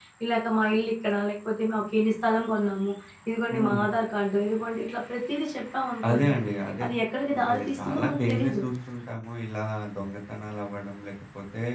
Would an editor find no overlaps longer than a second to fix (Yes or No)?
No